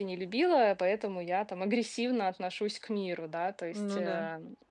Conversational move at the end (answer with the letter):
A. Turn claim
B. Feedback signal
B